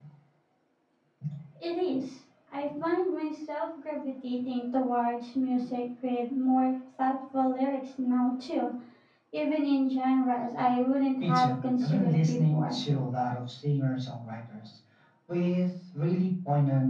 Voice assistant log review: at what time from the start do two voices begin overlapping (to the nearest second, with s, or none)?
11 s